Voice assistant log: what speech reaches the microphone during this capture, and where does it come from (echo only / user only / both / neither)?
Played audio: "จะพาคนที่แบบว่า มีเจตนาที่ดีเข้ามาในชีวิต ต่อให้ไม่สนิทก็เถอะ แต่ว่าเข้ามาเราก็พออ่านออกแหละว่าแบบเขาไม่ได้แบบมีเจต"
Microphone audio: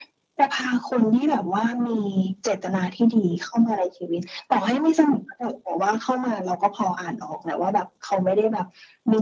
echo only